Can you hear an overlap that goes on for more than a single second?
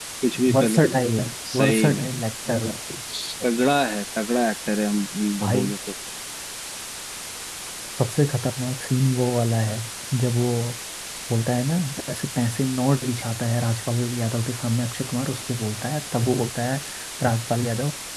No

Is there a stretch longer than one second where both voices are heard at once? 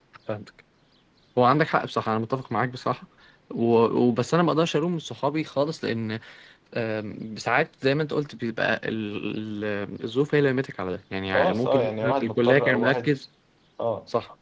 Yes, from 11.3 s

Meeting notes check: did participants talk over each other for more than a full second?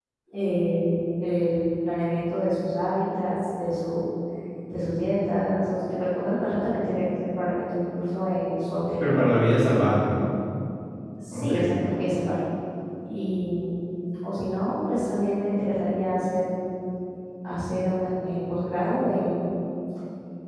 No

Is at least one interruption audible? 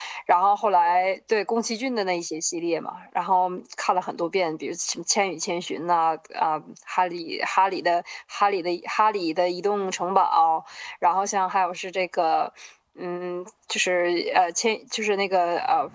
No

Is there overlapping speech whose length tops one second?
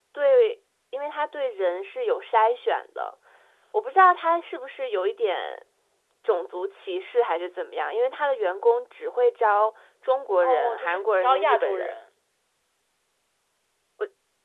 Yes, from 10.4 s

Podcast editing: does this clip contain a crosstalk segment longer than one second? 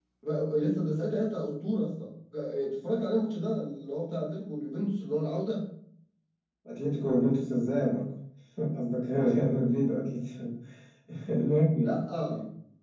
No

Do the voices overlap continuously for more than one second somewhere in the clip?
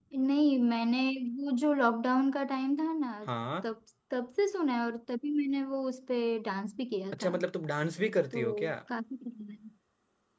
No

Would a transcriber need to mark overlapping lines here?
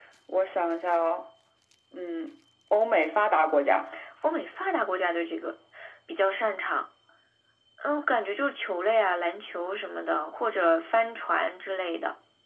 No

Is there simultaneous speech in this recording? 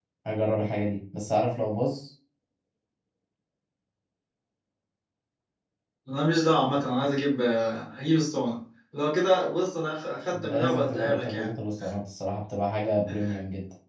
Yes, from 10.4 s

